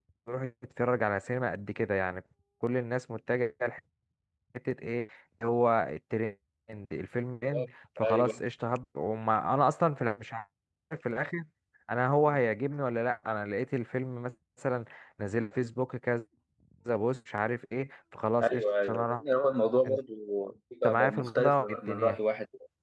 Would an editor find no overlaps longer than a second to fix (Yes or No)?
No